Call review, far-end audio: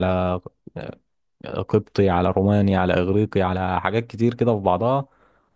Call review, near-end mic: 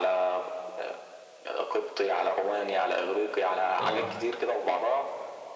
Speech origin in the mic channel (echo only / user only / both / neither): both